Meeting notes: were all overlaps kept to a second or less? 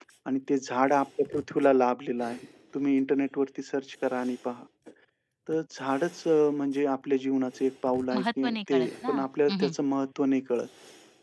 No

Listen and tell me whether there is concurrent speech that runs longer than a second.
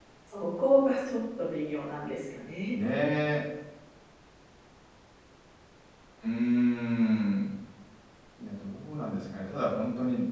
No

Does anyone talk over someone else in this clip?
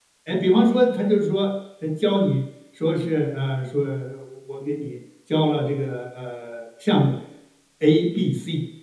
No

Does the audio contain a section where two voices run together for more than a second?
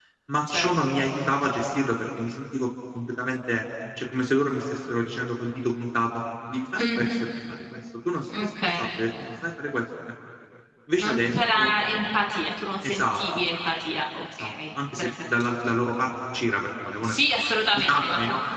Yes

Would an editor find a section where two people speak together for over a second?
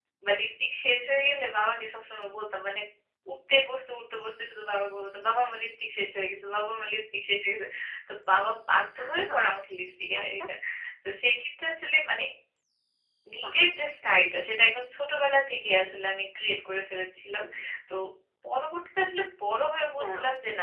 No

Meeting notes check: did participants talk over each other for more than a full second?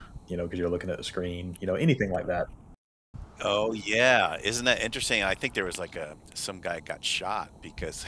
No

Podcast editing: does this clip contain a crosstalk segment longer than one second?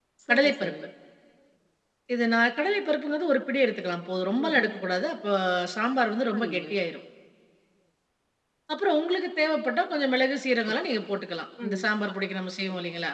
No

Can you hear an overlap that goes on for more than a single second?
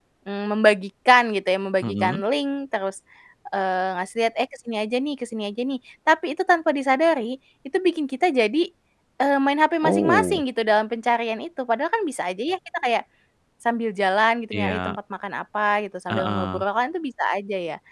No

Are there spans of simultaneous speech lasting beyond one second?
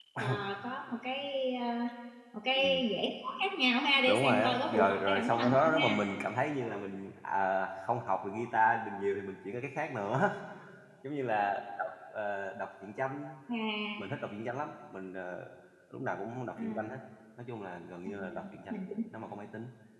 Yes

